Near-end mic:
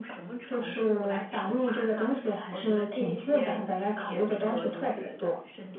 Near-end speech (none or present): present